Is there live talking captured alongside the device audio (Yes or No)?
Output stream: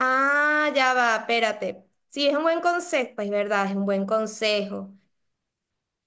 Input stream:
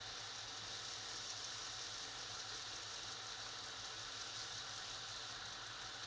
No